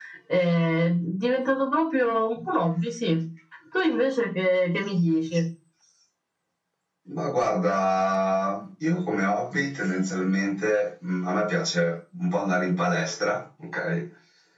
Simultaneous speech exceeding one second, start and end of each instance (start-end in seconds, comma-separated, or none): none